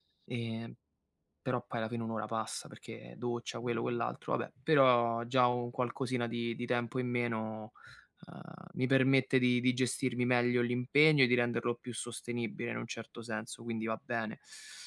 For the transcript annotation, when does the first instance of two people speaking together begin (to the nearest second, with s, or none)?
none